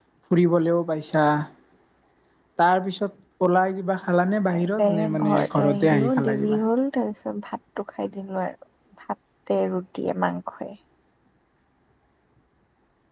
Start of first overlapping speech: 4.8 s

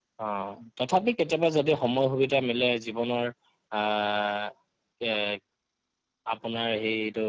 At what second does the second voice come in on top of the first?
none

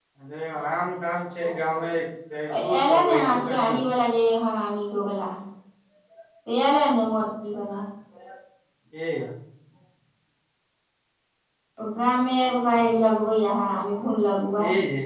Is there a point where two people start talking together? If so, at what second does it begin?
2.5 s

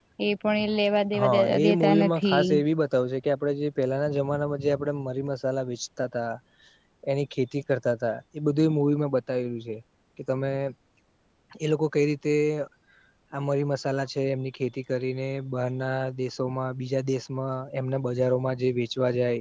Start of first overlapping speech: 1.2 s

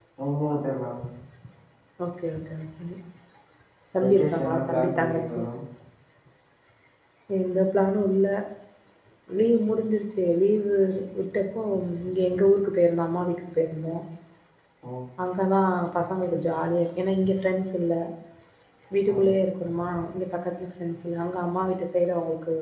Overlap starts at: 4.0 s

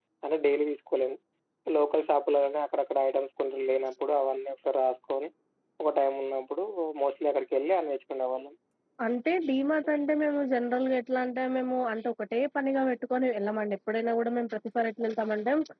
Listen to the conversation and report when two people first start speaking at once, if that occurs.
none

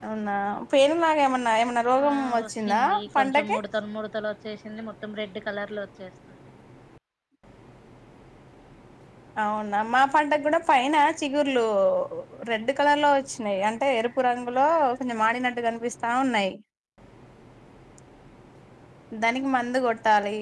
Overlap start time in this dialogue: 2.0 s

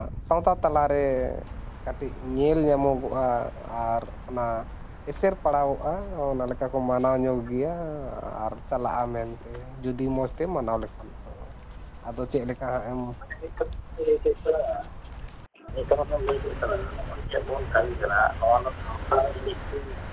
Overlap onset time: none

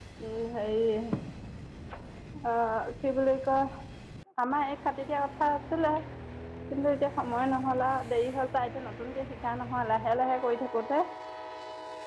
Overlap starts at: none

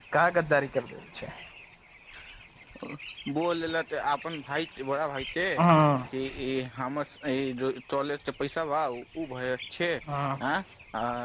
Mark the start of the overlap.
none

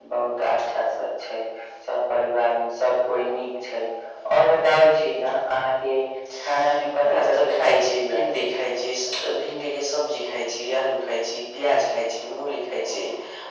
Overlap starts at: 7.0 s

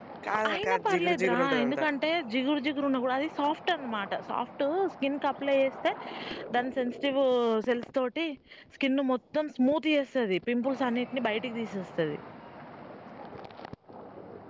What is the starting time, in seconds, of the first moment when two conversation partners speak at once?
0.5 s

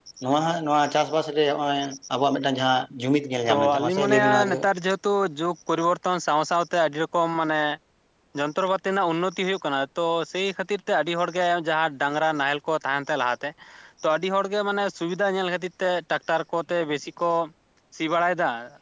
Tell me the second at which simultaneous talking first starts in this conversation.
3.5 s

